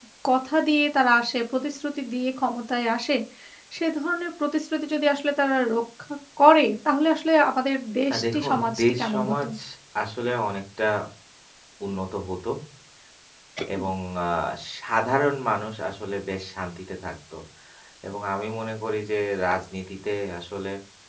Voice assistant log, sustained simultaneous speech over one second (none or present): present